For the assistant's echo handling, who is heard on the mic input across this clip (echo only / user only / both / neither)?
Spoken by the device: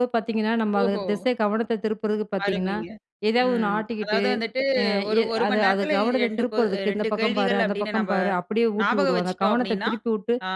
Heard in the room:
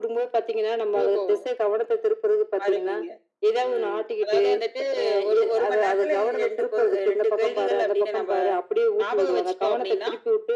echo only